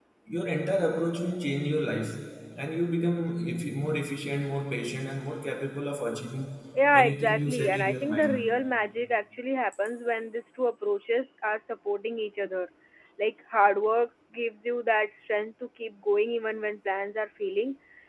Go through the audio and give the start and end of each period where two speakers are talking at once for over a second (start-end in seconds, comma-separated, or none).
7.0-8.4